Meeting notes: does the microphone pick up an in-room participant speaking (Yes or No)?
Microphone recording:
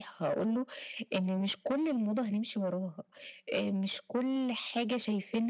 No